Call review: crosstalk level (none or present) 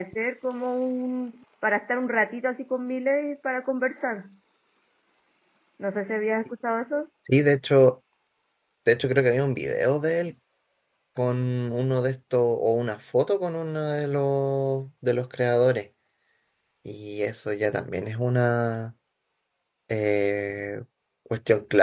none